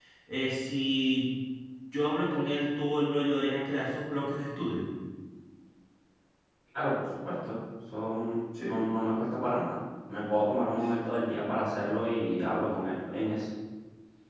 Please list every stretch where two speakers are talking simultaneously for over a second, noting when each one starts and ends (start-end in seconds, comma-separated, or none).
none